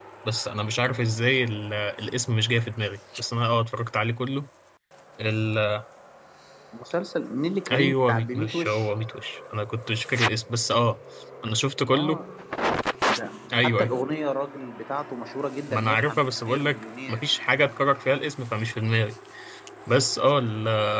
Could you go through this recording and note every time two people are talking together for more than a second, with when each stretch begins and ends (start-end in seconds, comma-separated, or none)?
7.7-8.9, 15.7-17.3